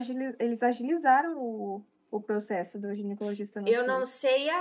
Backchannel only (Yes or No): No